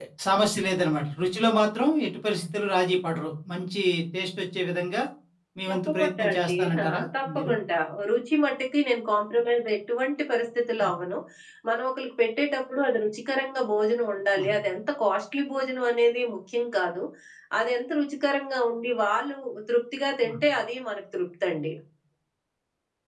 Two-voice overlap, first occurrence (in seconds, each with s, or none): 5.7 s